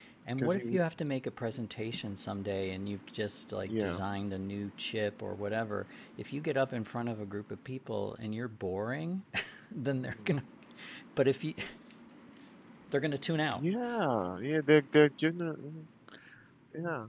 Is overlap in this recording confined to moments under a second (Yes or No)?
Yes